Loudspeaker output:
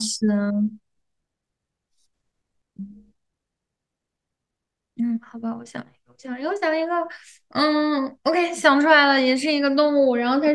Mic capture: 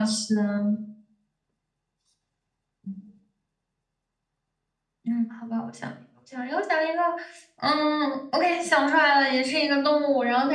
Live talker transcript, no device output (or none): none